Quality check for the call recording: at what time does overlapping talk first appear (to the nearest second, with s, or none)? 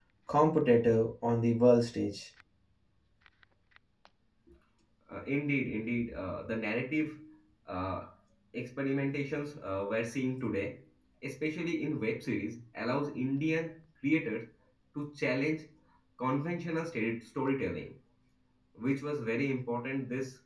none